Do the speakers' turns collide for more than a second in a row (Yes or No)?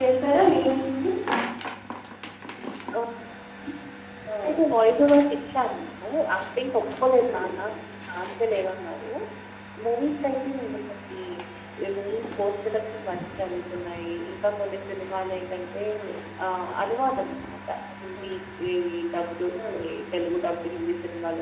No